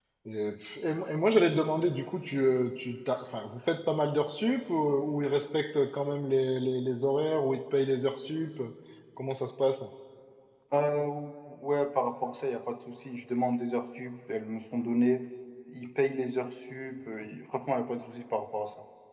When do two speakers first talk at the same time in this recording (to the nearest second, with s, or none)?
none